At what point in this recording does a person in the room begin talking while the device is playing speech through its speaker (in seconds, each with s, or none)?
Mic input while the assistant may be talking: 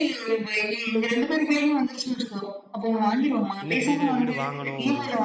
3.6 s